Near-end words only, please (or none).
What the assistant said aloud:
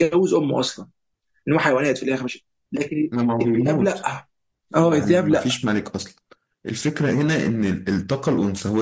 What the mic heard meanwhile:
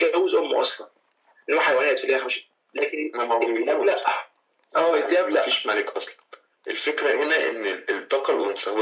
none